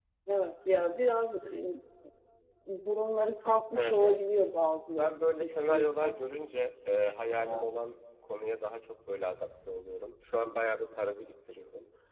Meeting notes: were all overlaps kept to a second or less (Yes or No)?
No